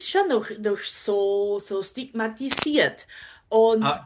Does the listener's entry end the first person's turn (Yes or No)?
Yes